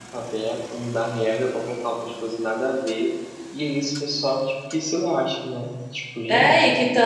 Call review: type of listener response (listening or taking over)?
taking over